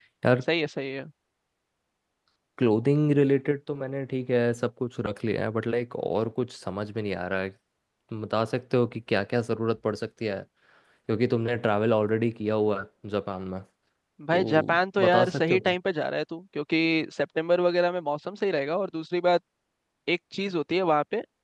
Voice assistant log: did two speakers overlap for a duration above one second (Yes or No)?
Yes